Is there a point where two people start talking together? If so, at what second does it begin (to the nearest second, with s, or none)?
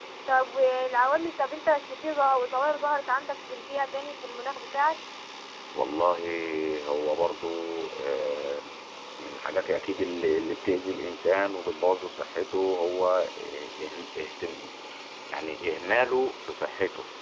none